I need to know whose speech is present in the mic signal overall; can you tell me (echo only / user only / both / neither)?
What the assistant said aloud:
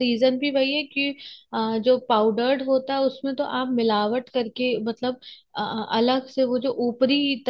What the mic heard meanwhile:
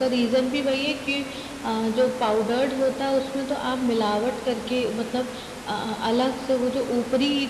echo only